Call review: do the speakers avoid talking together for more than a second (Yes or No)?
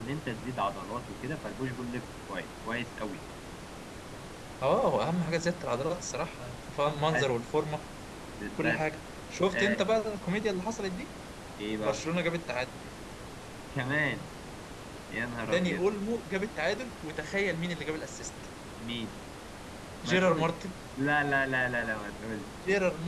Yes